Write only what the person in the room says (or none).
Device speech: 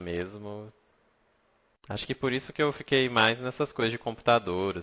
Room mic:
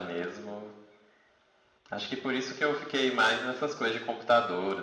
none